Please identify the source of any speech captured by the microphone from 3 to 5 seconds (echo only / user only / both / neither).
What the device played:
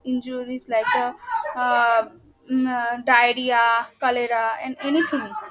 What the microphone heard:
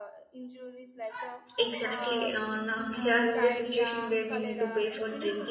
both